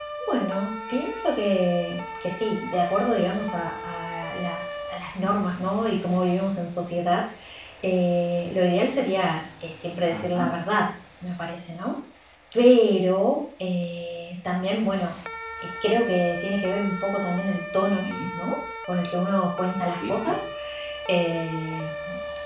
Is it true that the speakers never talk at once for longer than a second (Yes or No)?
Yes